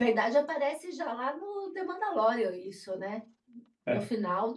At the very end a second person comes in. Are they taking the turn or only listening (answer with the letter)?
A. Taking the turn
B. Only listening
B